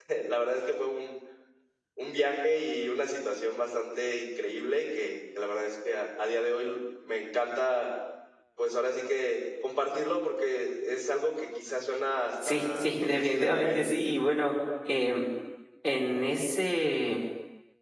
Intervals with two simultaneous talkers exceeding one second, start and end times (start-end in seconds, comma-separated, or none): 12.5-13.8